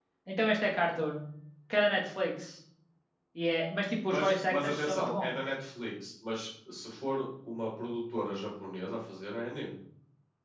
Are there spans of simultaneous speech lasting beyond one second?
Yes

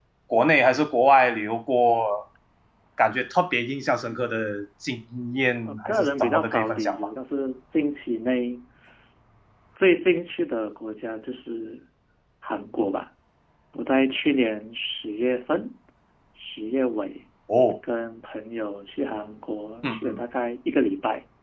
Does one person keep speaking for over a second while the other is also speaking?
Yes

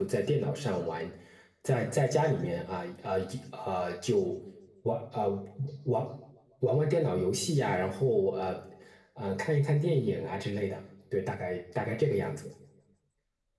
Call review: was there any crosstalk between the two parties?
No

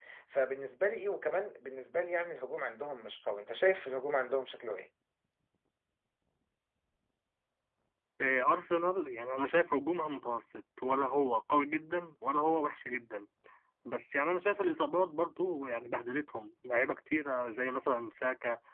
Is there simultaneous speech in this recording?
No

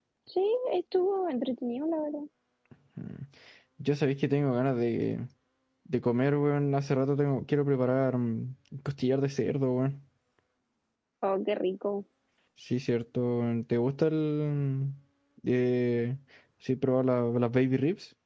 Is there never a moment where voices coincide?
Yes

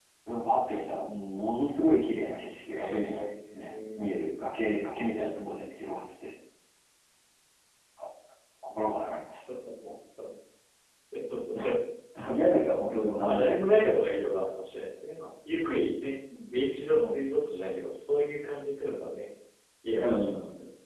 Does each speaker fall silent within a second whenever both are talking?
No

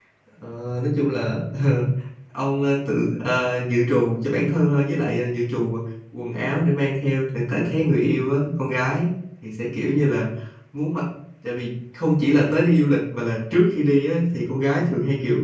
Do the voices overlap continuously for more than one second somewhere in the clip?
No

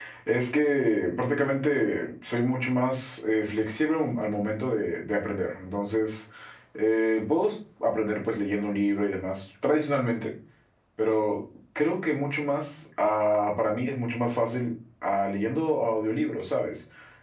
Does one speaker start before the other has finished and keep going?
No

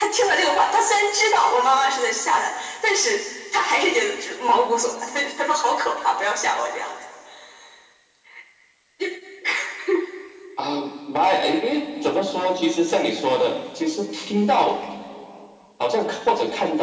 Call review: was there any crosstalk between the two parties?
No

